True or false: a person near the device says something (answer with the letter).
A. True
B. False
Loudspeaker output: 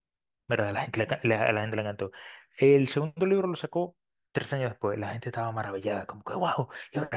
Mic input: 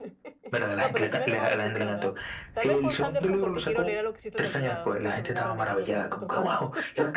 A